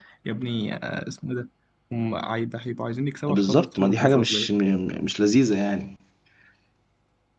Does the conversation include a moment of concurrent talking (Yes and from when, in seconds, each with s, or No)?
Yes, from 3.3 s